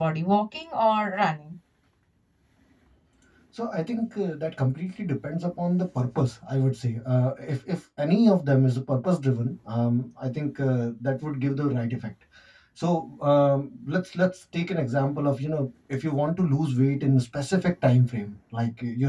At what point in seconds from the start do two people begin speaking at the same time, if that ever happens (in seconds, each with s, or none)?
none